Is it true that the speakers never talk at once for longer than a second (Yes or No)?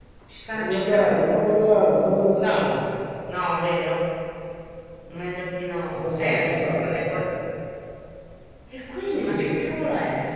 No